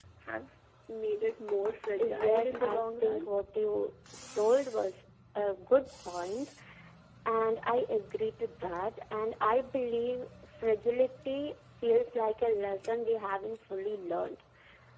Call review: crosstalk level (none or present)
present